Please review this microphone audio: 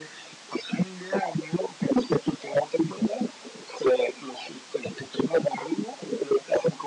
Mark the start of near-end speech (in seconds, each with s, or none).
none